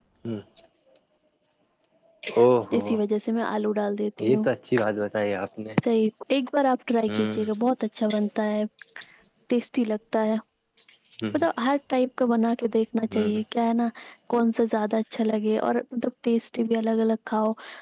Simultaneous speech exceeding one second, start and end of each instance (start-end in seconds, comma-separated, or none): none